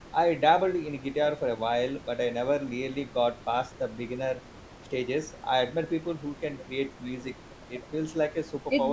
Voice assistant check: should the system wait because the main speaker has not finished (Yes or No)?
No